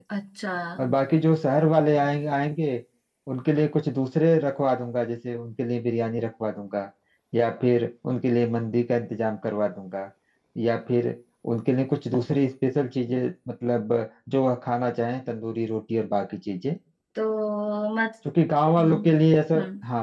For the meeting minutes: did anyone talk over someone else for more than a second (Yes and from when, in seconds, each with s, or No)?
No